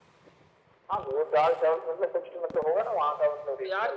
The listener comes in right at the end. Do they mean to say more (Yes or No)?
Yes